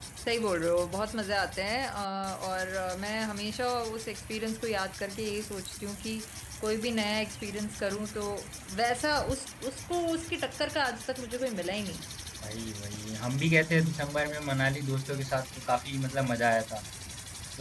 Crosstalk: none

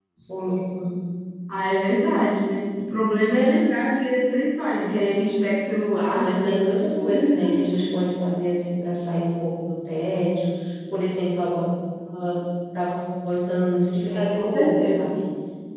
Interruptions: present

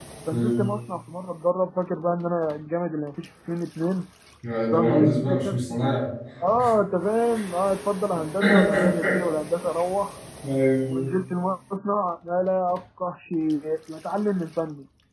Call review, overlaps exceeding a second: present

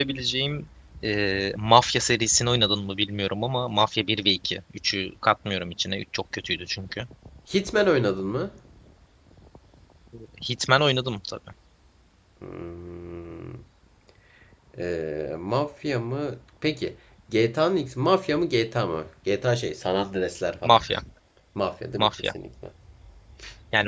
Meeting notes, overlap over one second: none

